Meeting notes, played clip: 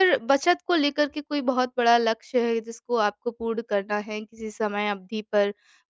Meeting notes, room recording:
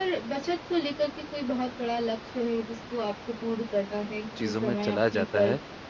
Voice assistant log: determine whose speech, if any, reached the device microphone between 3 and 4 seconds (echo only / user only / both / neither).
echo only